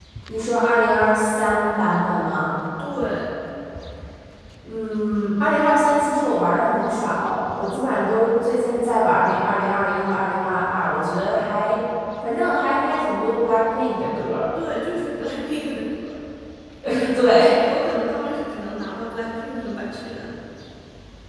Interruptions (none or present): none